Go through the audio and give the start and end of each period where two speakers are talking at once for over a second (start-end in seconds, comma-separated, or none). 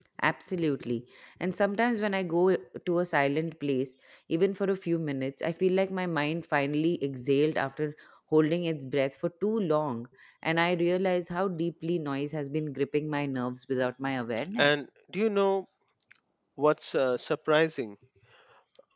none